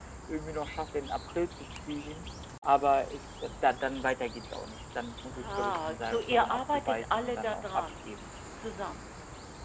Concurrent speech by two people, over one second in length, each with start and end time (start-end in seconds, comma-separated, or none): 5.3-7.9